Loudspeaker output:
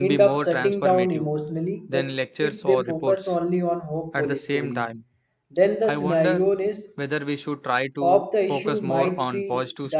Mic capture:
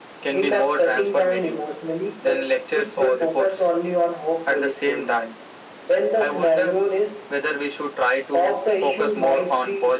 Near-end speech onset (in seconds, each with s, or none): none